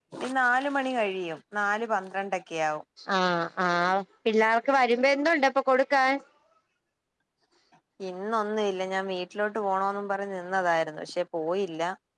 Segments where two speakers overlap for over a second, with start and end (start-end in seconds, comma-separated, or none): none